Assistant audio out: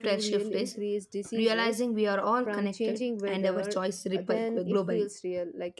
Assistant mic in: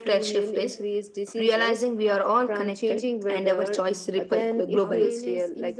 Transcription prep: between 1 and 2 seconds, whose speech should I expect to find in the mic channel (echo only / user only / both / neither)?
echo only